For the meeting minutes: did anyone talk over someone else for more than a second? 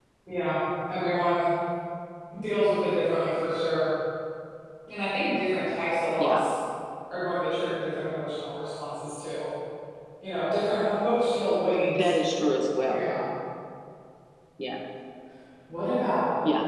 No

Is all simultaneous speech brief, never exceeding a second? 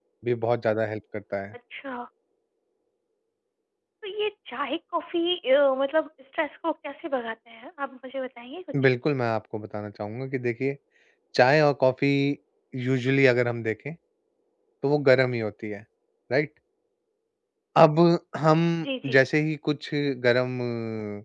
Yes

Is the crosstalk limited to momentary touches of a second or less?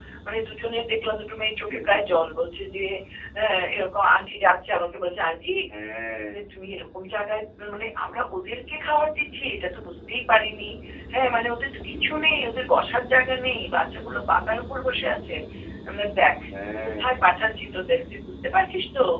Yes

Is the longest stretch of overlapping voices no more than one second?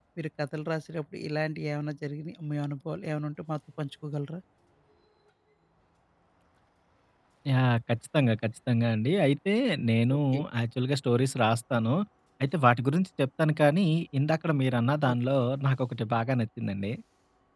Yes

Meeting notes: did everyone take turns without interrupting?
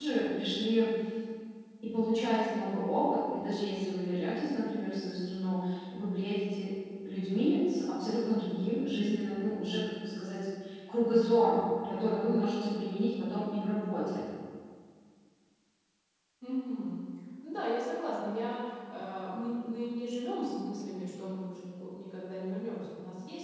Yes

